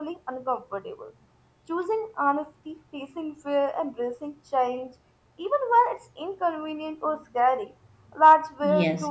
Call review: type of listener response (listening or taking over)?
taking over